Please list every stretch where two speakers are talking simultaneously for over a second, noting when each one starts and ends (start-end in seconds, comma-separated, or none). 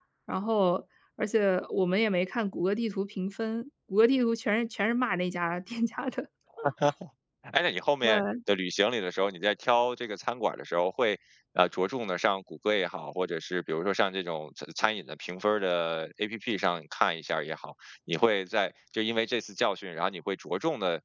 none